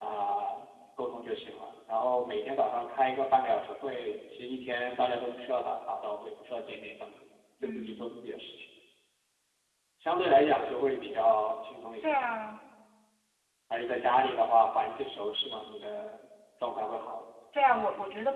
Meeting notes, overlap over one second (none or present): none